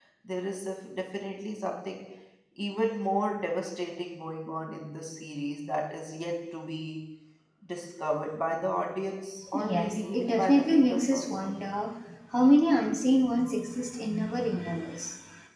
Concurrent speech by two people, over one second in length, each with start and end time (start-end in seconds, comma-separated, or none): 9.5-11.5